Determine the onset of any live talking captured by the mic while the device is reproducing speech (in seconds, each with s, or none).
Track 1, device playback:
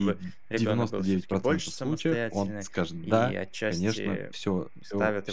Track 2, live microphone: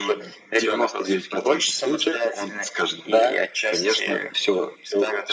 none